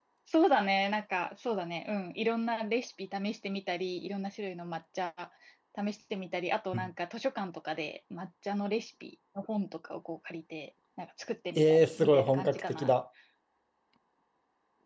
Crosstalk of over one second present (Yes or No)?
Yes